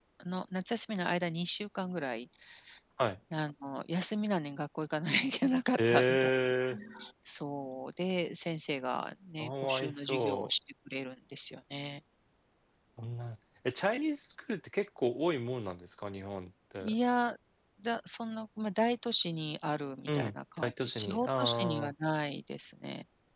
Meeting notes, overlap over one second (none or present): present